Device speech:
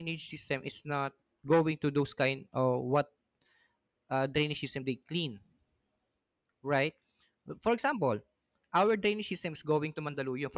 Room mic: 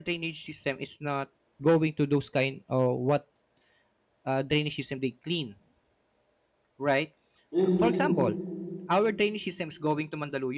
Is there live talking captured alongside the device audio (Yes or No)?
Yes